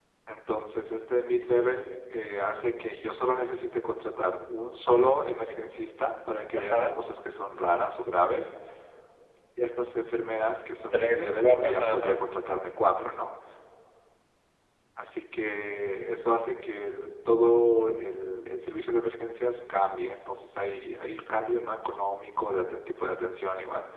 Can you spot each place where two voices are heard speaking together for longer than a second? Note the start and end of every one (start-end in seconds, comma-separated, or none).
10.9-12.2